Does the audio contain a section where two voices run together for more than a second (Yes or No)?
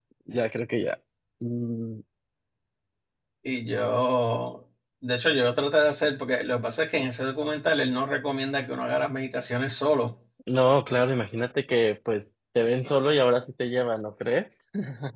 No